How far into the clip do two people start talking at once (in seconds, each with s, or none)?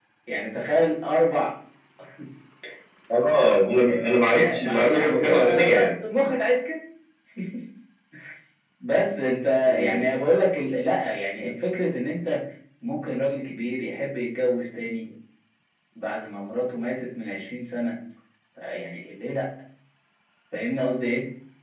4.6 s